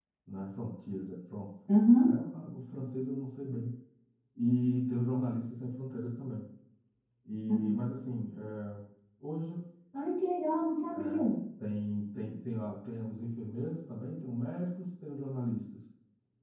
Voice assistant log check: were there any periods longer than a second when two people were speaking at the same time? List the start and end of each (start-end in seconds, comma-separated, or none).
none